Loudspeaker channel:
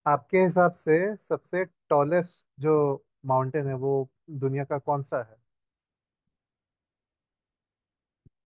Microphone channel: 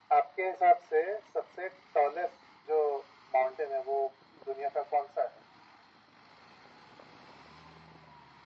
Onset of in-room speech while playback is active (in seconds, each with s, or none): none